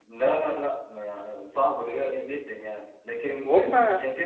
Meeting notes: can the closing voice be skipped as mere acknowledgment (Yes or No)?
Yes